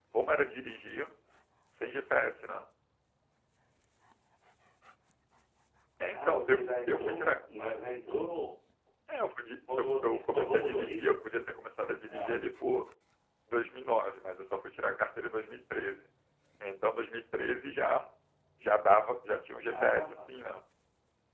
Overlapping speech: Yes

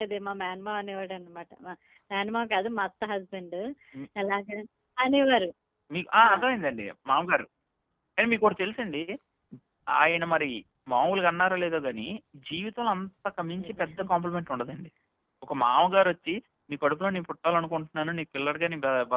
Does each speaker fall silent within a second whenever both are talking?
Yes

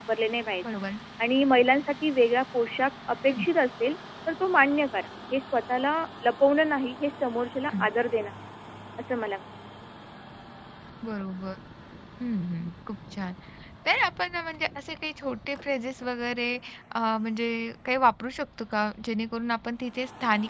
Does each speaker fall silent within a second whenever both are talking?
Yes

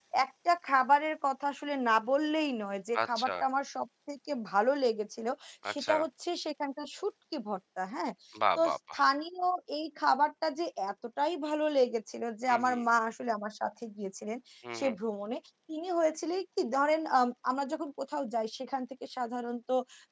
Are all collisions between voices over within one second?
Yes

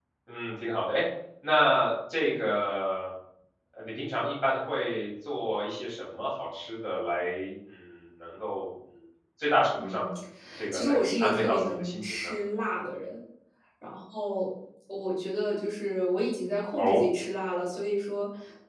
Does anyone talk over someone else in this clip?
Yes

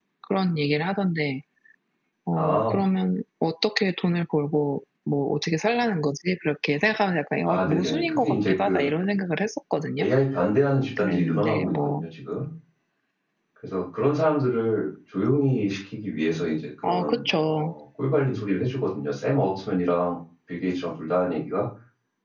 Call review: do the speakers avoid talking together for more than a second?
No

